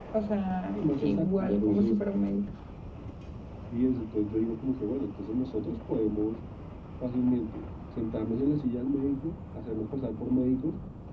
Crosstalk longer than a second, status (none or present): present